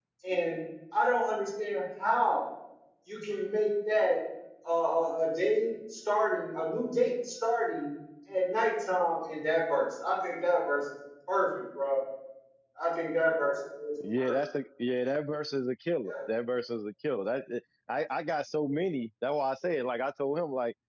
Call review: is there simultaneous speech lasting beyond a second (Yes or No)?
No